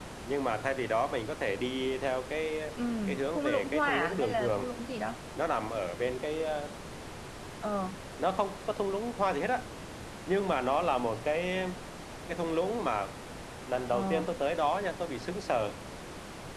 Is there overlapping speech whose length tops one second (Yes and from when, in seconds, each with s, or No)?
Yes, from 3.4 s